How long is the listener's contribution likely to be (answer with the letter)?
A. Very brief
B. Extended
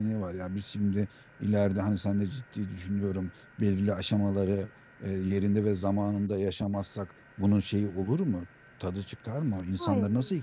B